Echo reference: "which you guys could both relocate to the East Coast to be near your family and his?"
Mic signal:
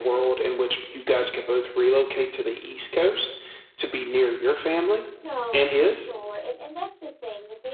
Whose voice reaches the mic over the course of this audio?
both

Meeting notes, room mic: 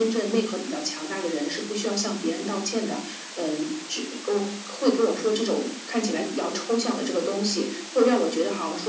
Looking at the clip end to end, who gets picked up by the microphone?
echo only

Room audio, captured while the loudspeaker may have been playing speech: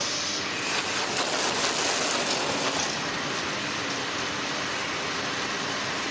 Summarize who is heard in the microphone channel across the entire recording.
neither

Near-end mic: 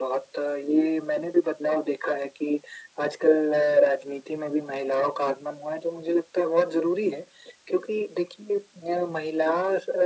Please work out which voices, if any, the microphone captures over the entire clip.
echo only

